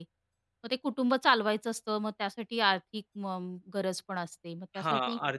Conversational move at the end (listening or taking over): taking over